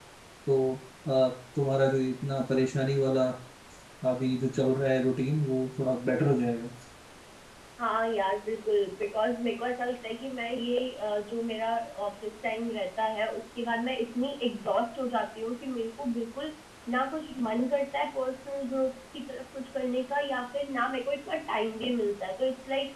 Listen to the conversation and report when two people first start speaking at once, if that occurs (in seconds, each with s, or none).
none